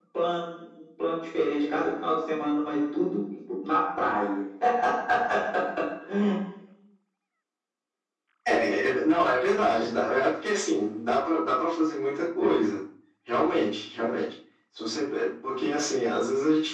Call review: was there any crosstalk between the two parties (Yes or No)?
No